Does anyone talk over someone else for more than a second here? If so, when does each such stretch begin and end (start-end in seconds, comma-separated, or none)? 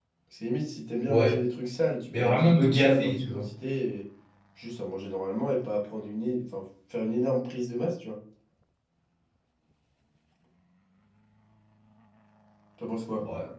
2.1-3.5